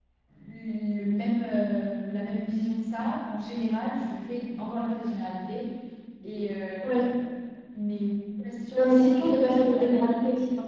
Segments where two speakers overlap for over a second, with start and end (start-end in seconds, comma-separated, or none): 8.7-10.1